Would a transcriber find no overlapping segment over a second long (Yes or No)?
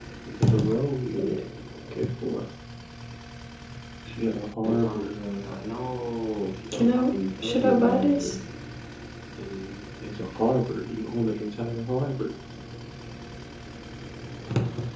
No